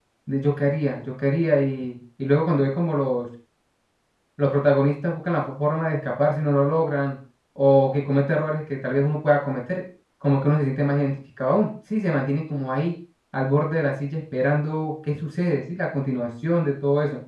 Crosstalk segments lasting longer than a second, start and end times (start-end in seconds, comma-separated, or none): none